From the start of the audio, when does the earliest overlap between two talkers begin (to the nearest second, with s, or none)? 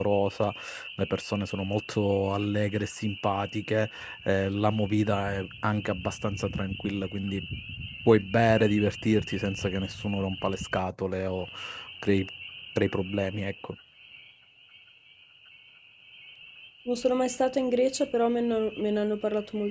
none